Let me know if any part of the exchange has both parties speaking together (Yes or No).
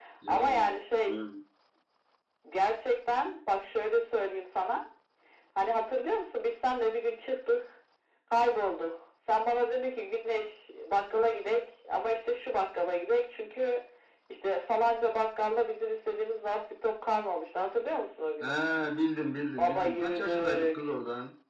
Yes